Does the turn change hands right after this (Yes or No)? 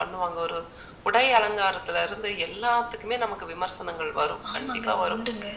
No